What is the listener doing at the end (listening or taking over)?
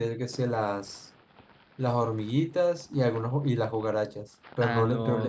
taking over